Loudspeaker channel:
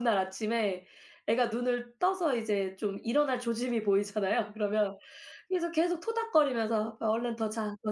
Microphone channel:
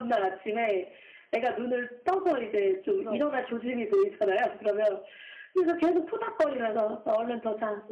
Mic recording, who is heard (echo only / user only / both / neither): both